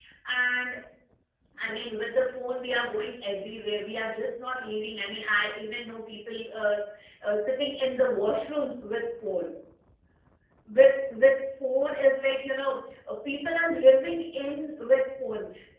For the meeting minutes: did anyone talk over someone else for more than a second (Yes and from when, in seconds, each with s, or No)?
No